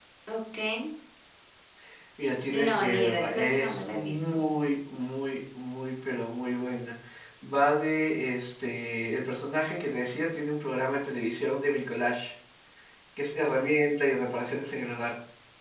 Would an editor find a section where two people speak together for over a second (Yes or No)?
Yes